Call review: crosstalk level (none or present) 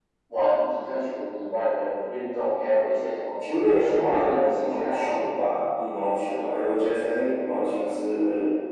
present